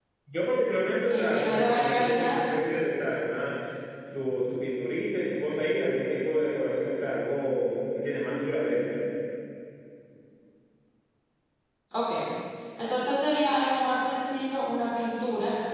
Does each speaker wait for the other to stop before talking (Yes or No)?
No